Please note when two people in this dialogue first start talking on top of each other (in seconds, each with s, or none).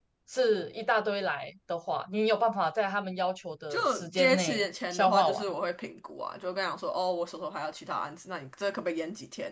3.7 s